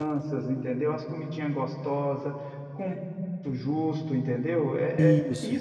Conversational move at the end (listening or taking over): listening